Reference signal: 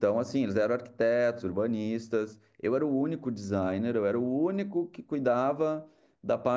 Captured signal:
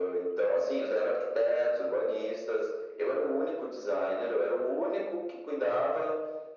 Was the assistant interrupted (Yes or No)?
No